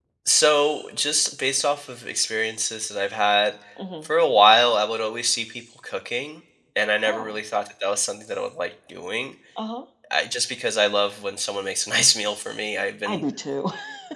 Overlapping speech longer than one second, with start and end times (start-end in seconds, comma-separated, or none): none